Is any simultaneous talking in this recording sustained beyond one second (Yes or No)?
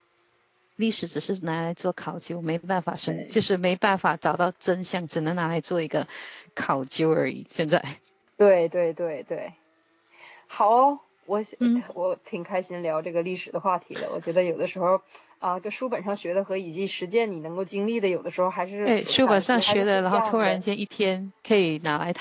Yes